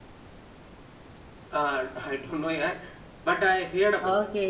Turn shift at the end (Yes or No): Yes